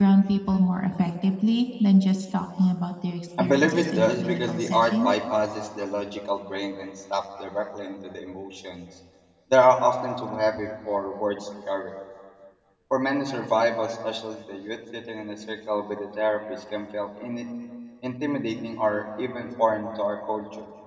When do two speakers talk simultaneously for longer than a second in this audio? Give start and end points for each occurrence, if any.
3.4-5.1

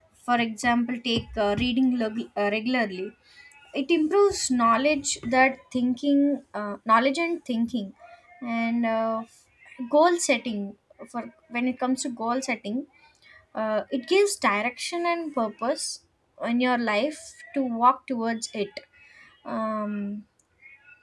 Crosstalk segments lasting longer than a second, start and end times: none

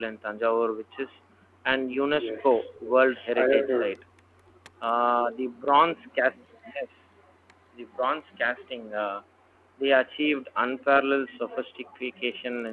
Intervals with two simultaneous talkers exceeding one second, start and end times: 2.1-3.9

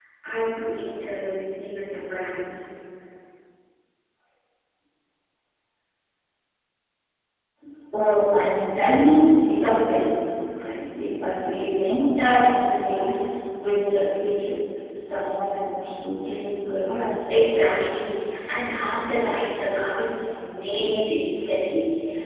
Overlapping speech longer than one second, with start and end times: none

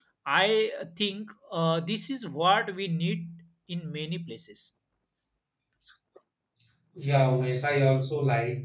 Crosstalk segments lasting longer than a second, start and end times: none

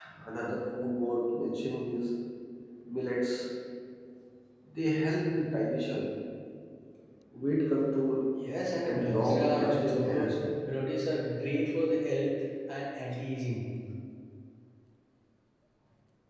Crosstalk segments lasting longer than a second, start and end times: 8.8-10.3

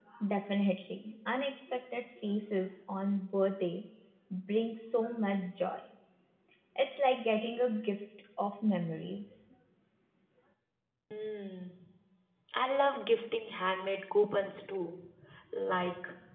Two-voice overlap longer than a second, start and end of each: none

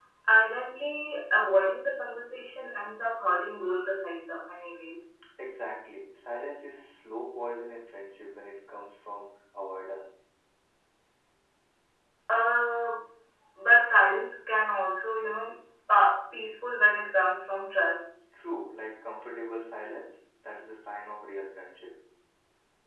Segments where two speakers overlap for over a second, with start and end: none

